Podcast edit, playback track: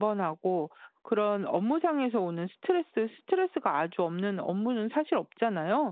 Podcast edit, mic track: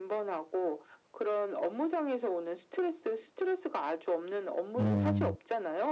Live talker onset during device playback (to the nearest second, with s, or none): 5 s